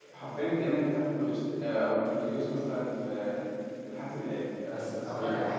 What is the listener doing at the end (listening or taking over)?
taking over